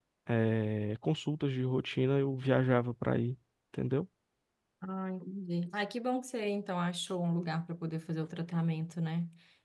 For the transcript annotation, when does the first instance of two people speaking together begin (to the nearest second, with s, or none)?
none